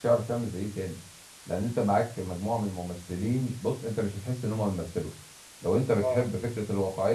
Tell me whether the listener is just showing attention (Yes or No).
Yes